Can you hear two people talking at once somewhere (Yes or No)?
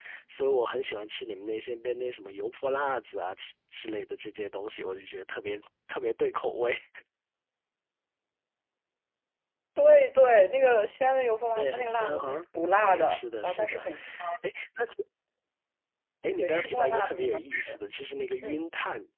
Yes